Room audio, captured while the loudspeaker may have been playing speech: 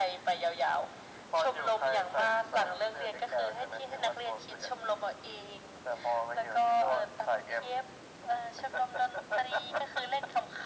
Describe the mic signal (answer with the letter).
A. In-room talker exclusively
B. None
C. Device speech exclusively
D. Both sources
C